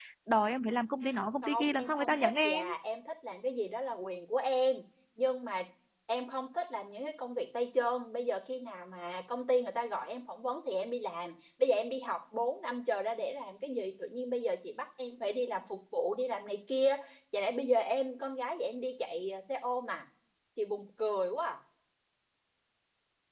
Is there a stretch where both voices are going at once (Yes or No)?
Yes